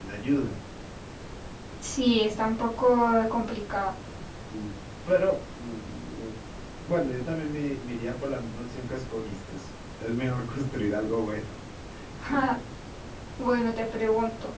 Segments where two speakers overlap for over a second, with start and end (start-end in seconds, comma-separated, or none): none